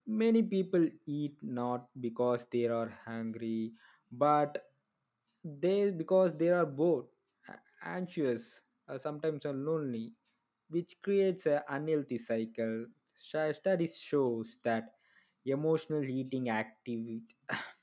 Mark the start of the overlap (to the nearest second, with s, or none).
none